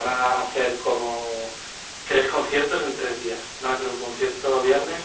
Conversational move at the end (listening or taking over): listening